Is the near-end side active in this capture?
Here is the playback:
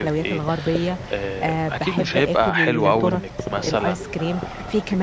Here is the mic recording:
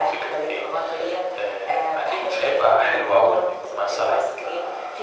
No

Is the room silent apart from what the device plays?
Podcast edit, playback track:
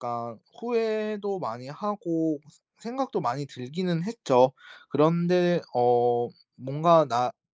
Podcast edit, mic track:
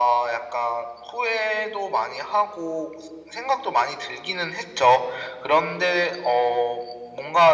Yes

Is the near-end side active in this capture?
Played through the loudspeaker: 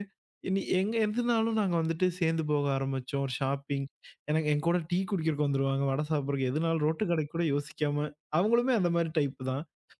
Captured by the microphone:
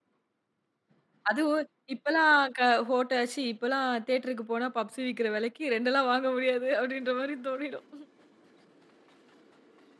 Yes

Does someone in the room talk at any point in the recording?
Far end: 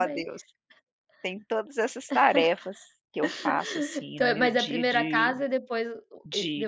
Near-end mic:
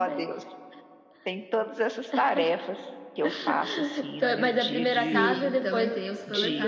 Yes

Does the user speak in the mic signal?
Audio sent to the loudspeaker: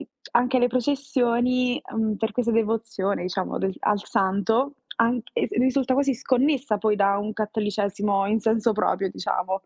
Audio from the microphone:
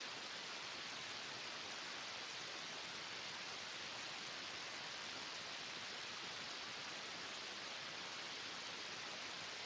No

